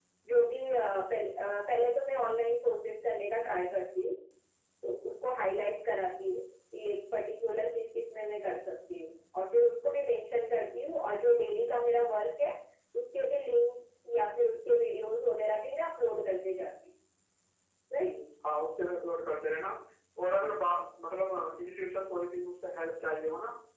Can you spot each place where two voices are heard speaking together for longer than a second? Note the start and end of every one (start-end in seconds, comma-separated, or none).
none